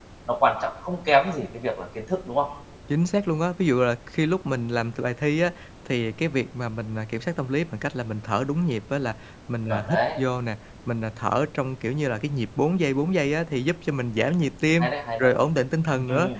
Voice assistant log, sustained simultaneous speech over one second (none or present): none